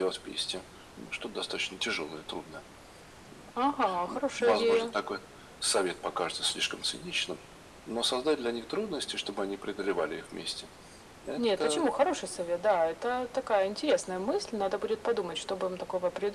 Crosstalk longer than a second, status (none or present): present